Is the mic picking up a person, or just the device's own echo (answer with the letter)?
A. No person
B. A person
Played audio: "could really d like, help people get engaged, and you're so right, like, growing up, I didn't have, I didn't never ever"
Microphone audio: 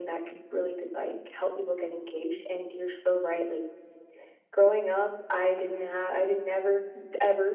A